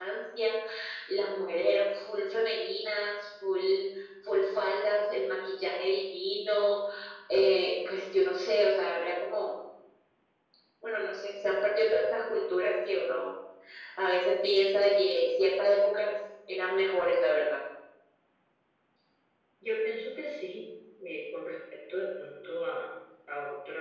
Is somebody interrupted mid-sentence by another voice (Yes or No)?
No